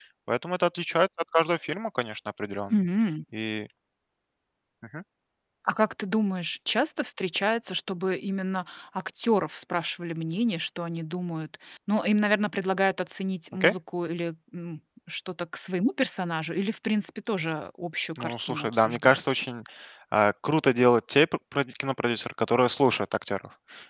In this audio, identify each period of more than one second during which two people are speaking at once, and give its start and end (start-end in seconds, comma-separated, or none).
18.1-19.4